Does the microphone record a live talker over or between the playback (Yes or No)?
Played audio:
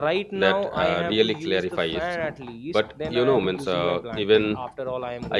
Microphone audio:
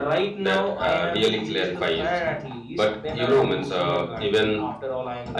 No